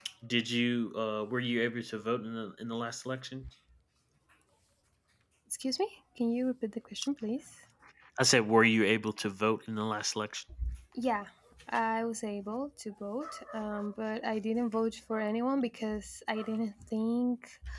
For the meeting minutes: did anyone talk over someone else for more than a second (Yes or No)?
No